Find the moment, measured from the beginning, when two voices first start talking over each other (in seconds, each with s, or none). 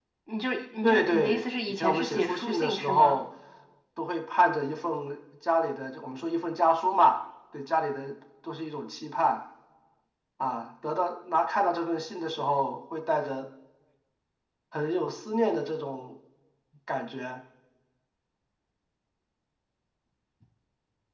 0.8 s